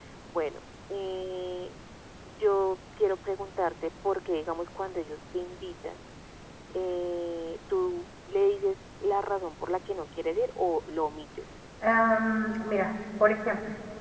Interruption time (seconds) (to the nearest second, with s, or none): none